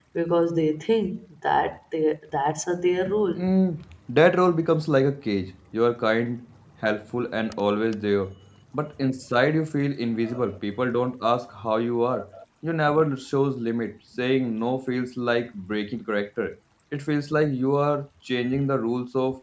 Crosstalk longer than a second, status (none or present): none